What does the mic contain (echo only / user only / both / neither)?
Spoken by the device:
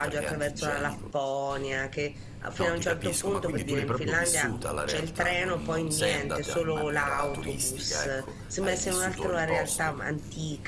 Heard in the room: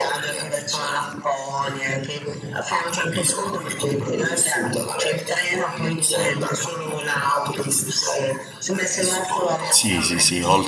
both